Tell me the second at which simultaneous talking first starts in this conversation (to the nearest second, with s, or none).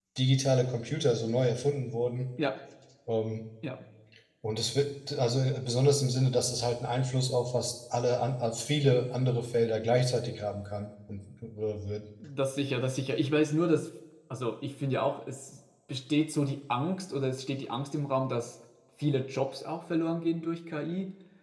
none